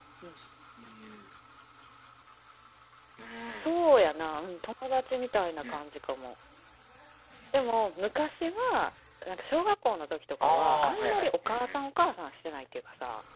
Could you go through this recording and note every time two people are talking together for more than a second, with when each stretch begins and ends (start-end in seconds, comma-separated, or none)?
10.4-11.8